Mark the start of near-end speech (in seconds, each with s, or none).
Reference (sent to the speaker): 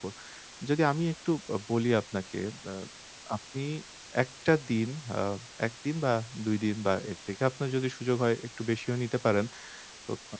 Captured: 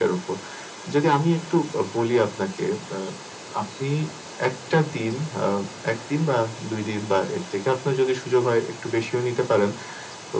none